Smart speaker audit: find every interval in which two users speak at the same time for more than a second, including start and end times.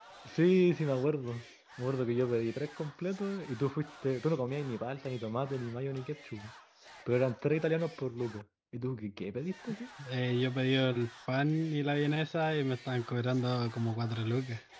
none

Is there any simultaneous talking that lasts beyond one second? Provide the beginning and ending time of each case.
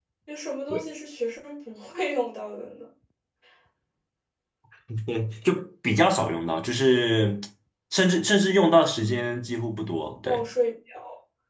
none

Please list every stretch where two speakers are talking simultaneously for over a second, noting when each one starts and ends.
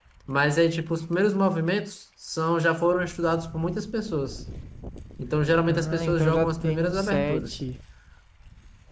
5.7-7.6

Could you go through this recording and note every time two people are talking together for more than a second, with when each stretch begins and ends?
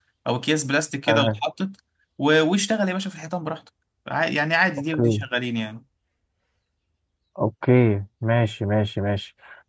none

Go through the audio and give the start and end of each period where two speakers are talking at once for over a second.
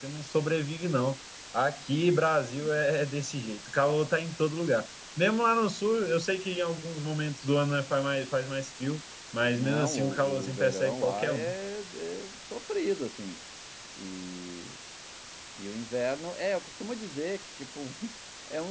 9.5-11.5

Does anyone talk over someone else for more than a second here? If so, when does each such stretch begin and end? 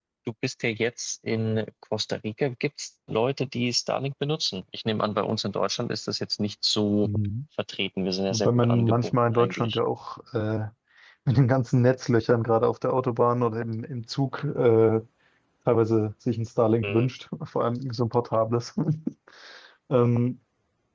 8.3-9.8

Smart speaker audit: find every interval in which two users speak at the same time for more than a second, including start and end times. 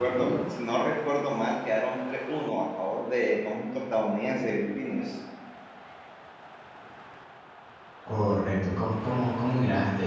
none

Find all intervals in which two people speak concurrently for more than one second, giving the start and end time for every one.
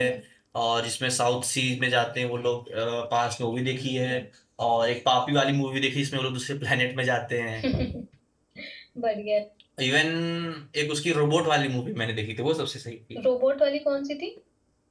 none

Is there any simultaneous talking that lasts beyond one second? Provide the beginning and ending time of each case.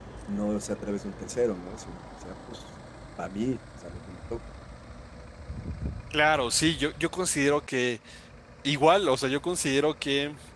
none

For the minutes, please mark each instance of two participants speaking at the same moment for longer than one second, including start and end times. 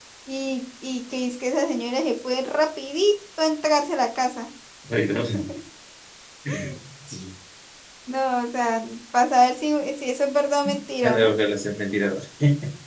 none

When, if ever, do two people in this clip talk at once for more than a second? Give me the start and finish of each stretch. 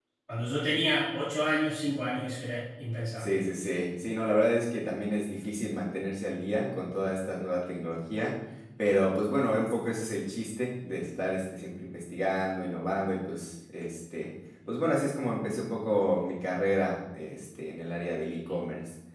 none

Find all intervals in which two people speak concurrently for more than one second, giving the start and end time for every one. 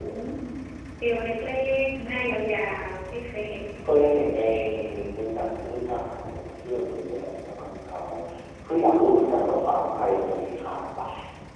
none

